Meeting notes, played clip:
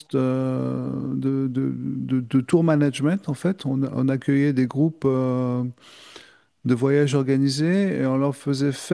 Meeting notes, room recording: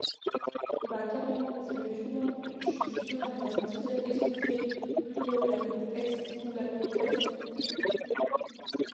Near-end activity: present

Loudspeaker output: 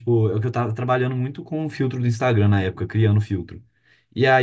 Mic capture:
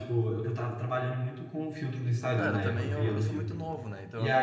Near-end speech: present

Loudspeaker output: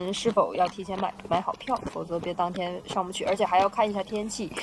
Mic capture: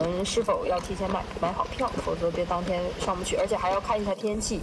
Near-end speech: none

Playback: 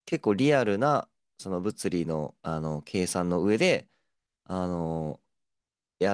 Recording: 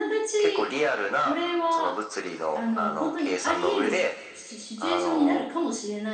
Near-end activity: present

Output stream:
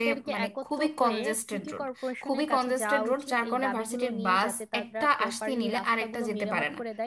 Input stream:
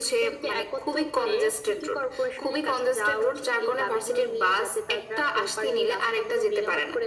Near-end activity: none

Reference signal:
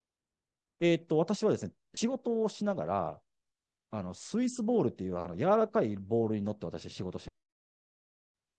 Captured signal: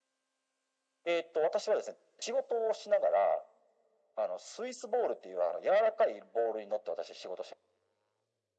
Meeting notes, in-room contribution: none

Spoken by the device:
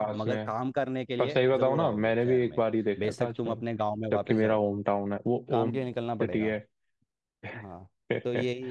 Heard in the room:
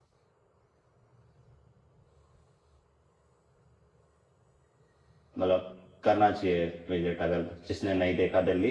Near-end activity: present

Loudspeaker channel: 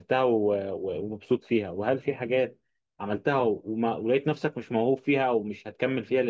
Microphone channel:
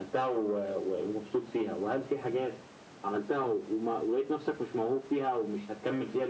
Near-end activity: none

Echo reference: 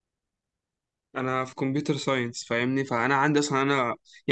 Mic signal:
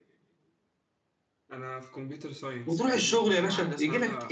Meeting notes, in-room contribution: present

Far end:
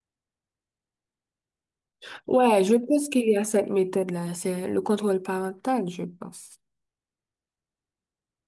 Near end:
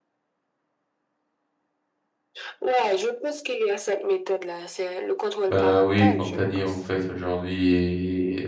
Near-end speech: present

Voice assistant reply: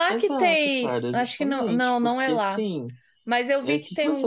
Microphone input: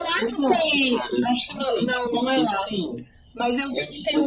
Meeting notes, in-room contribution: none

